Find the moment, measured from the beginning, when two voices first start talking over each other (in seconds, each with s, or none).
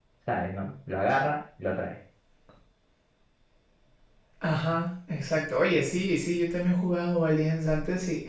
none